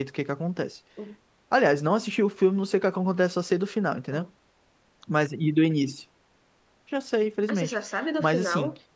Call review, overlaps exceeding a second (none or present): none